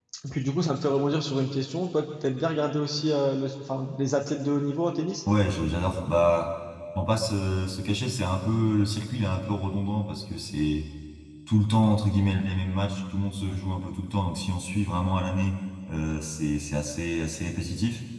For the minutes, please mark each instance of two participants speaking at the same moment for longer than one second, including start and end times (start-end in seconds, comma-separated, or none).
none